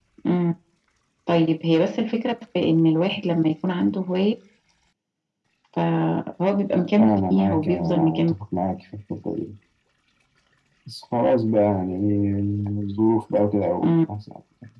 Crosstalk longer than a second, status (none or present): present